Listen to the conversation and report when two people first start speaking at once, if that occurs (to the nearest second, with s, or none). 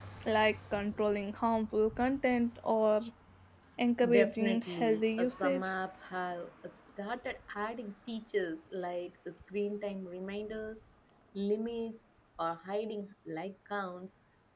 4 s